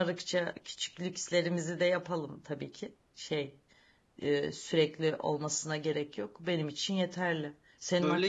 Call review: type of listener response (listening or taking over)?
listening